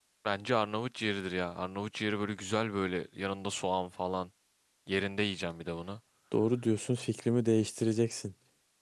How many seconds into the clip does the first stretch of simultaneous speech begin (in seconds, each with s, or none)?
none